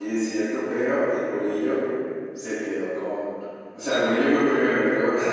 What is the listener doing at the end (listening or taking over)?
listening